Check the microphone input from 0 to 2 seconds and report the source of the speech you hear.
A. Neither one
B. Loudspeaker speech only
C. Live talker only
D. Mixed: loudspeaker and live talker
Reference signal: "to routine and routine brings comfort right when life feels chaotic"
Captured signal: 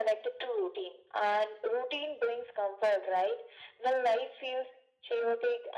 B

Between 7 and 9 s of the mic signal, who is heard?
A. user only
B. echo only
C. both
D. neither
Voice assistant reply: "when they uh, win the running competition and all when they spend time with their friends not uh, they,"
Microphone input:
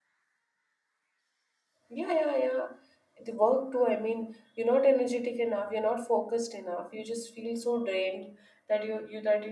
A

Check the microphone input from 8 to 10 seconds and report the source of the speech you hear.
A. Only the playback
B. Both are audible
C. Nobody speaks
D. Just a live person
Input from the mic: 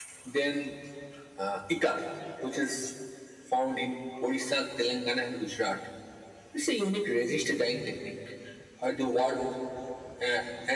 A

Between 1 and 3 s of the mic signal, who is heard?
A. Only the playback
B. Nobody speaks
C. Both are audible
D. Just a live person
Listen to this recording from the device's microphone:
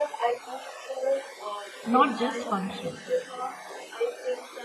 C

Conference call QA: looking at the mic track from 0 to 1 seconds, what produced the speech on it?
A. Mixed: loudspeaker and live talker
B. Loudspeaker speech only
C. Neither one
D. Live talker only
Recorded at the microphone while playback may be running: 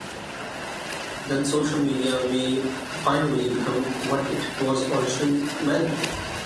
C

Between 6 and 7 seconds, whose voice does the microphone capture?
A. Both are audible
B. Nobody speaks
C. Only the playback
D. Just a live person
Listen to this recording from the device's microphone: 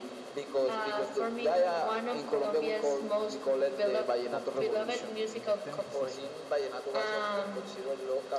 A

